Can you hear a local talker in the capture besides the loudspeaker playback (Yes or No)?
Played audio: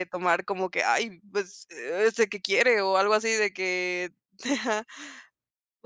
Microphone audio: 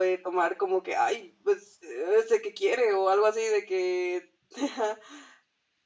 No